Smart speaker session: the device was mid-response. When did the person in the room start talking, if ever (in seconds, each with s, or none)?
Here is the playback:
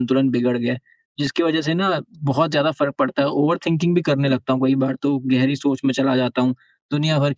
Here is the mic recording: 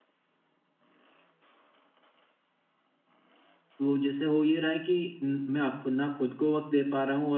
3.8 s